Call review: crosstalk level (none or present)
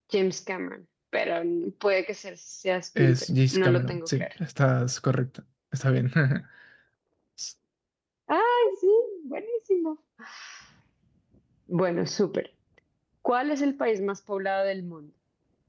present